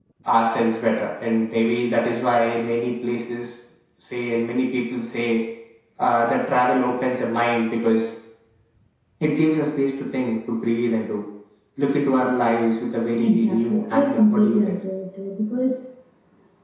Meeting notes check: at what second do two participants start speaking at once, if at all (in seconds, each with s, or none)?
13.2 s